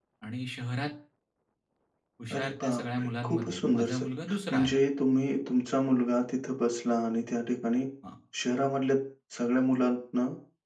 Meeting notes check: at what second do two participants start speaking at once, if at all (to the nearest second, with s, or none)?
2 s